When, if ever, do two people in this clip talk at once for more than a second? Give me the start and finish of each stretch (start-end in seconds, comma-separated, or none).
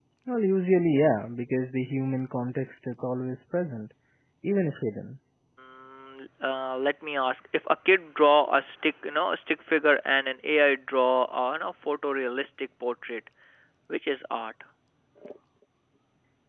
none